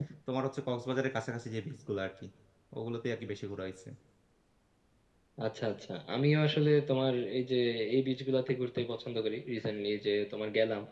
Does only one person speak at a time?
Yes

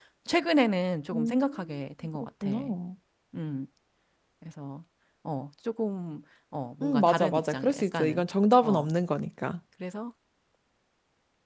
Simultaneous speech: Yes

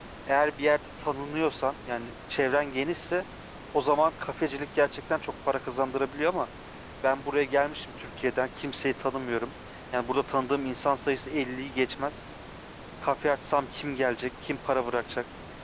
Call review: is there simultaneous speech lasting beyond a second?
No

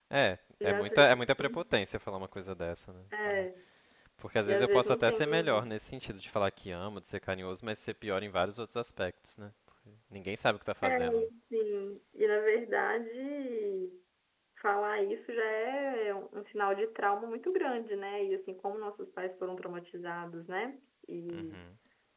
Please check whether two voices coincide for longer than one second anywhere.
Yes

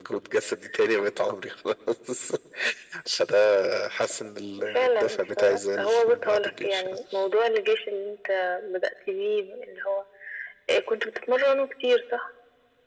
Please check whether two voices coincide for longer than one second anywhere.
Yes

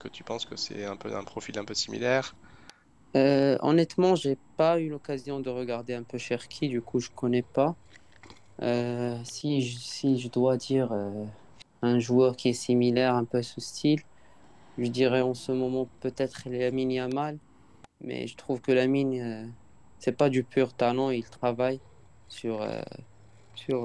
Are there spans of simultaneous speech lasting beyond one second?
No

